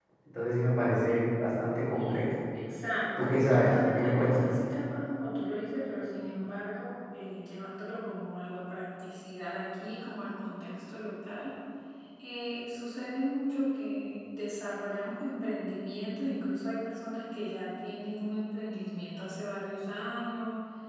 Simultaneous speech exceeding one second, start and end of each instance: 3.2-4.5

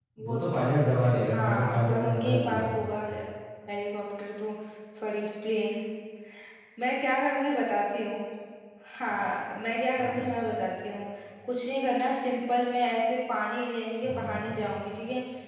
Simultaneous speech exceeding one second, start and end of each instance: 1.3-2.9

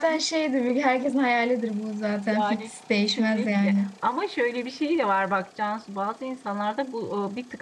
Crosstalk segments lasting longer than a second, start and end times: 2.2-3.9

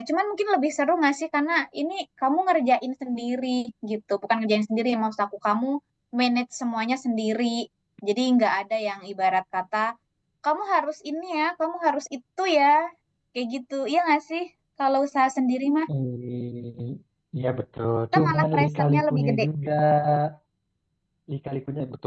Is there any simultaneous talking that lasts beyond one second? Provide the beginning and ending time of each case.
18.1-19.5

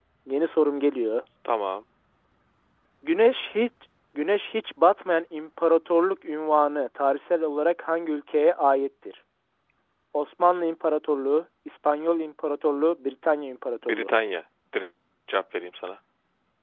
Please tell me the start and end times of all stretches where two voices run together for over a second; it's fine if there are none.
none

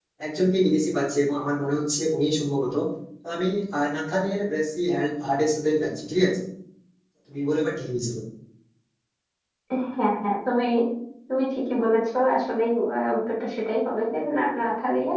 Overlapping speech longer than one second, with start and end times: none

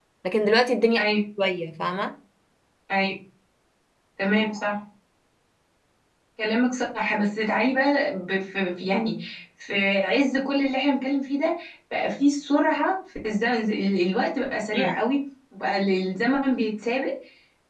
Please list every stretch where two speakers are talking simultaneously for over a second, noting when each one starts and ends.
none

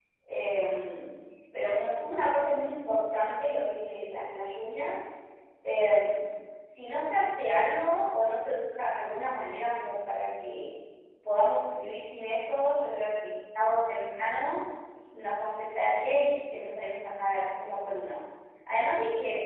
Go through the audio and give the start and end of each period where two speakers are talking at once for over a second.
none

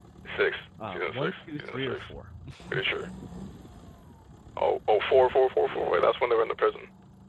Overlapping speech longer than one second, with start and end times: 0.9-2.1

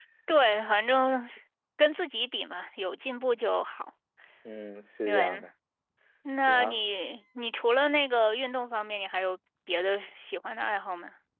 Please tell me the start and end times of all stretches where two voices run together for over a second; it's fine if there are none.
none

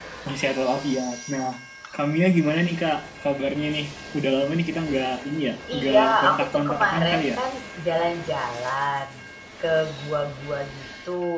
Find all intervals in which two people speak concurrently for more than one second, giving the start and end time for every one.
5.8-7.4

